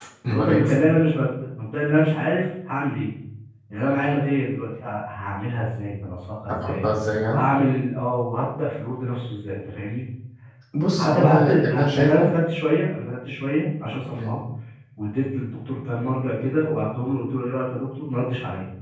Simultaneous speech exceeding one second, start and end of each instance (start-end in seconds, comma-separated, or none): 11.0-12.3